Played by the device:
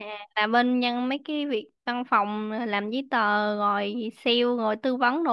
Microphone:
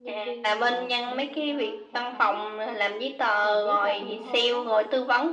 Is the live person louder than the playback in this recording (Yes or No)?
No